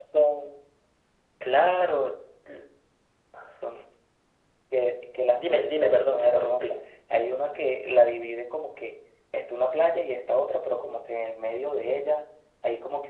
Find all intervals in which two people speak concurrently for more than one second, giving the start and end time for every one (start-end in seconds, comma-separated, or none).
5.4-6.7